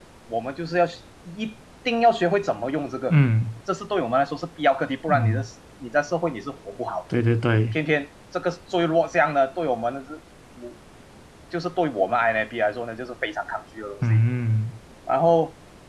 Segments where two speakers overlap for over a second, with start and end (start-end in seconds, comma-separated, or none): none